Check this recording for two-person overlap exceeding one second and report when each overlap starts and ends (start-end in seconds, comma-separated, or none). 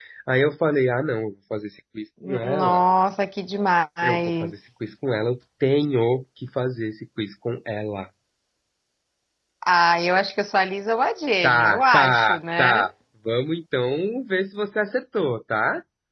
11.4-12.9